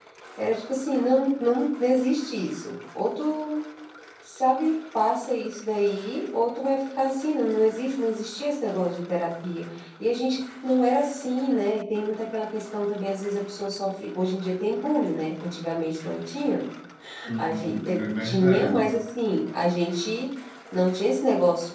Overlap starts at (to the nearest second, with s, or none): 17 s